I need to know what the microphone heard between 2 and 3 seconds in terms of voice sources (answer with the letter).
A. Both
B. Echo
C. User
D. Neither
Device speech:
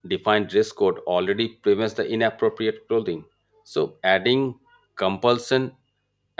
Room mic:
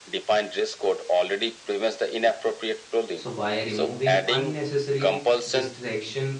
B